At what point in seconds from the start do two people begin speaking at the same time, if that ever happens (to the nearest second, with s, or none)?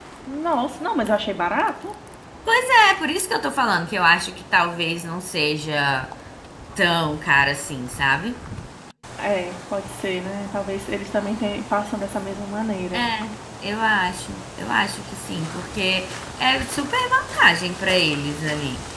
none